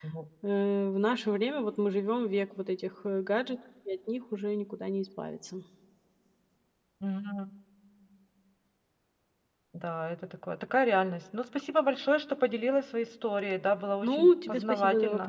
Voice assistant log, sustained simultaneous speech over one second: present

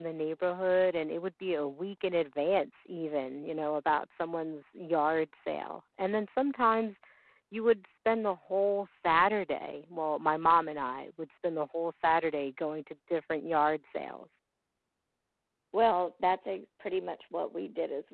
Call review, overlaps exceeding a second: none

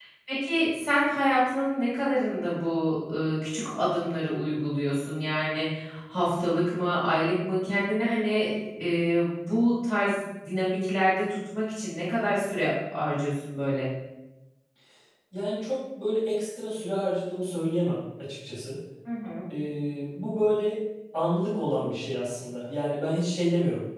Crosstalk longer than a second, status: none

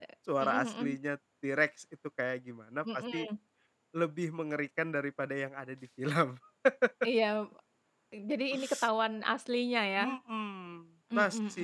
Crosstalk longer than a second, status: none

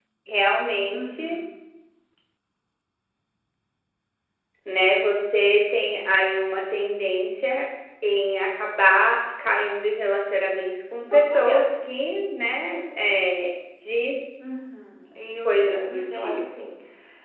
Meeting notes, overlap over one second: present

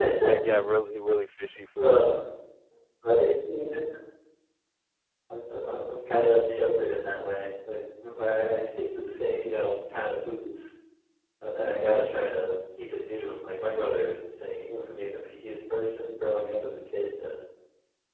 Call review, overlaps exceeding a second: none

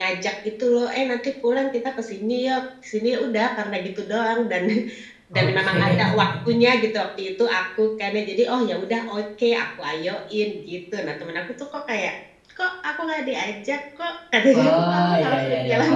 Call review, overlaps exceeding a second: present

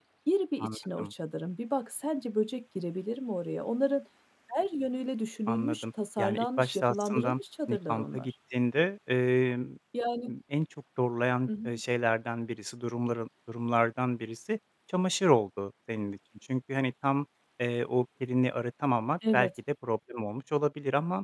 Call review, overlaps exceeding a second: present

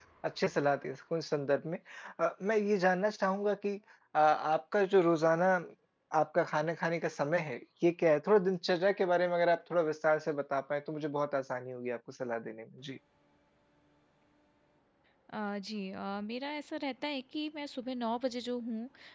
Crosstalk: none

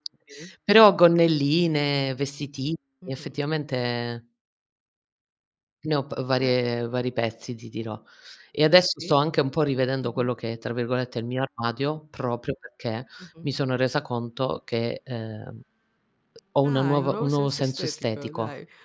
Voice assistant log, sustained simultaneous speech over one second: present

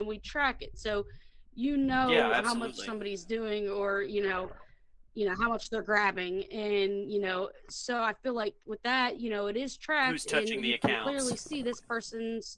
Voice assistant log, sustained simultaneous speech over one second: present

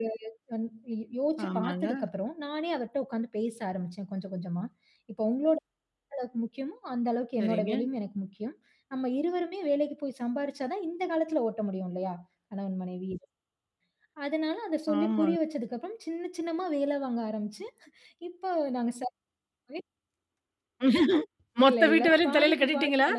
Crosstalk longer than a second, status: present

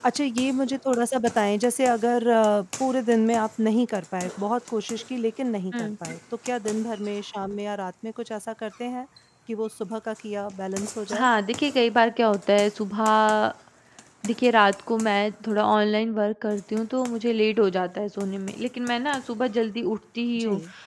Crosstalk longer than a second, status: none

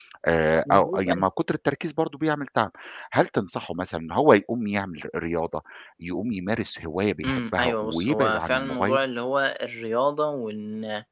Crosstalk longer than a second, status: present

